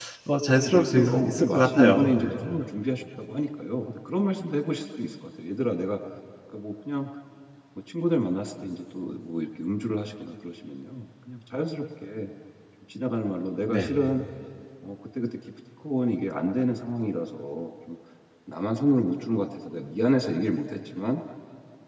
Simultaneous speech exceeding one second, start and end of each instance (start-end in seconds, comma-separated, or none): 0.5-2.2